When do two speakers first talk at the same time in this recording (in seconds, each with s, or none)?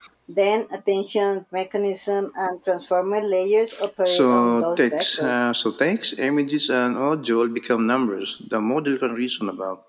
4.1 s